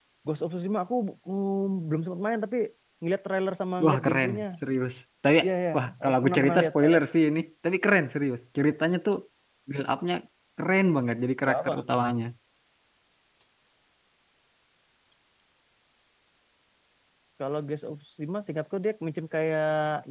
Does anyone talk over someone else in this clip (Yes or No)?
Yes